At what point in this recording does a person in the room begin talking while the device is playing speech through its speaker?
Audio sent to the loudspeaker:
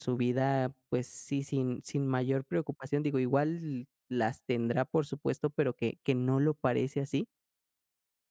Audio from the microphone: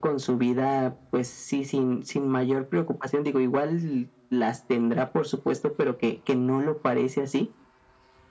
none

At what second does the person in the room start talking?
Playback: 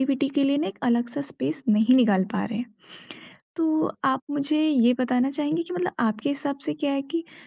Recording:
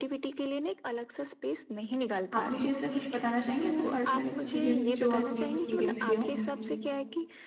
2.3 s

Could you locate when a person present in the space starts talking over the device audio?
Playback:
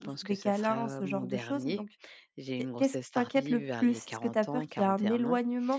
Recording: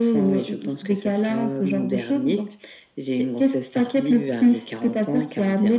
none

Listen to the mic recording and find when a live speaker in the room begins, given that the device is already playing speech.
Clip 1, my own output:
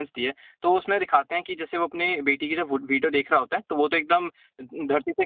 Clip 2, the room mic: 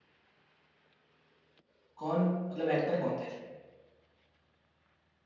2.0 s

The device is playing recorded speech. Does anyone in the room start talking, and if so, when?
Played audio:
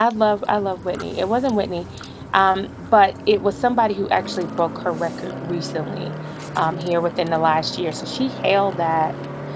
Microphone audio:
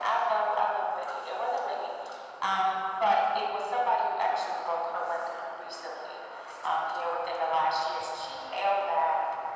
none

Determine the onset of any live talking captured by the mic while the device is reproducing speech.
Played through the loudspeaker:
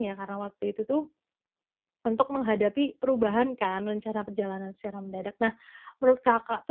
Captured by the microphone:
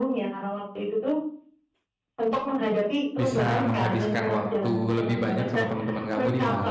3.2 s

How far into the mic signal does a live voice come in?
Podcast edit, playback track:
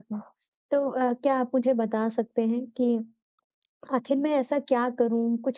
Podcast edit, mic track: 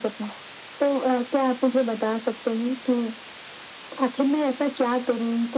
none

